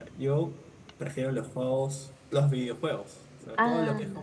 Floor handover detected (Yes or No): No